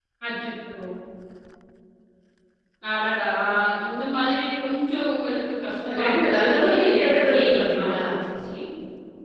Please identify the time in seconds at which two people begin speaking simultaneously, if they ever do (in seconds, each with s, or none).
5.8 s